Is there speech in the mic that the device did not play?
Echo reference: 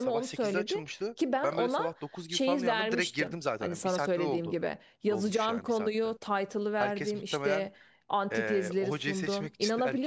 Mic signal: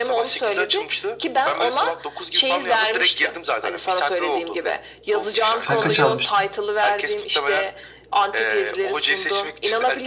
Yes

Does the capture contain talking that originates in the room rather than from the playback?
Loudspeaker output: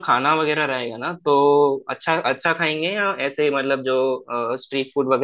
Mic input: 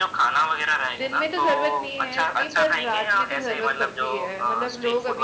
Yes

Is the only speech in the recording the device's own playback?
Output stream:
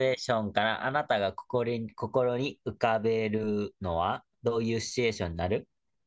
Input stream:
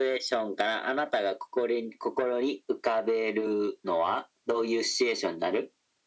Yes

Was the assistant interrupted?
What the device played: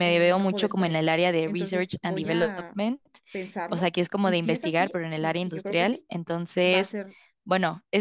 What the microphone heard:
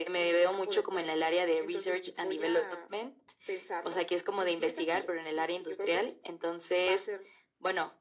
No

